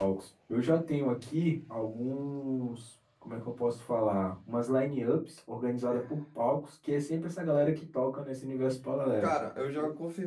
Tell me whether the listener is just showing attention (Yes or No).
No